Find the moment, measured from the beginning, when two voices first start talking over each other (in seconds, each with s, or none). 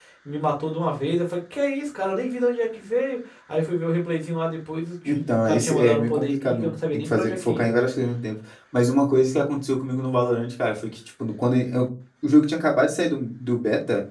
5.0 s